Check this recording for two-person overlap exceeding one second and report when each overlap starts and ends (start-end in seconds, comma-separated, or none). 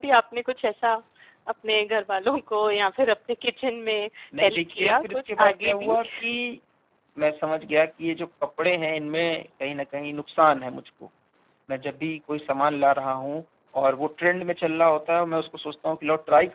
4.4-6.0